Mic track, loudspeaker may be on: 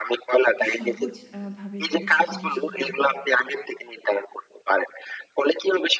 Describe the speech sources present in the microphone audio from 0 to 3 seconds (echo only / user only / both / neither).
both